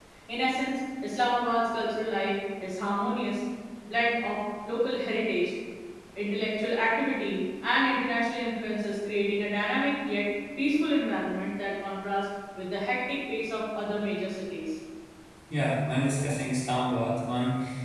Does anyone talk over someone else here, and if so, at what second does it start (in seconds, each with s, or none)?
none